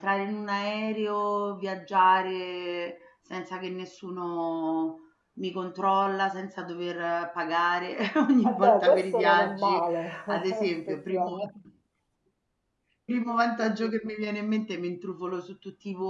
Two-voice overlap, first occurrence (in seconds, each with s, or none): 8.4 s